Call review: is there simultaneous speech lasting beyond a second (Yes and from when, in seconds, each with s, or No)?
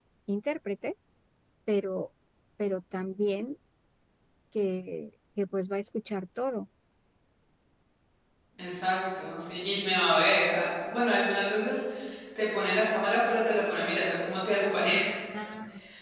No